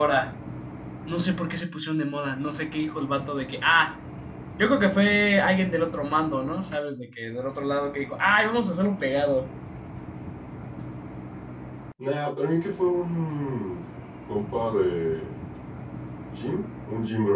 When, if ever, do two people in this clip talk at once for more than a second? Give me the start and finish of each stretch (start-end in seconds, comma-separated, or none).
none